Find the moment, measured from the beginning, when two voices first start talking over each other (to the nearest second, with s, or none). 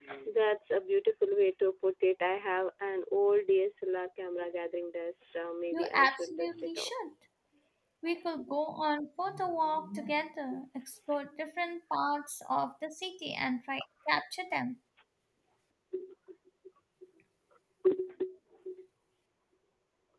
6 s